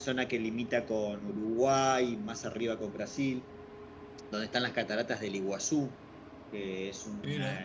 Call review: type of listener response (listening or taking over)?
listening